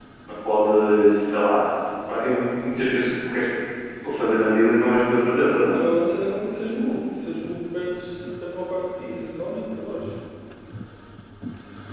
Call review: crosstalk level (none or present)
none